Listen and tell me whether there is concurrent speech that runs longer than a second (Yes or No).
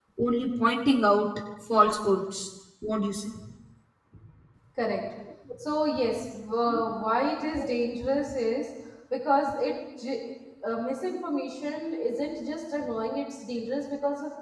No